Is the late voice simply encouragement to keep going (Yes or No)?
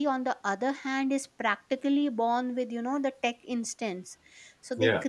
Yes